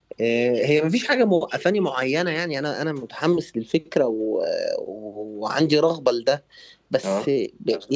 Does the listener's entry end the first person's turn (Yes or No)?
No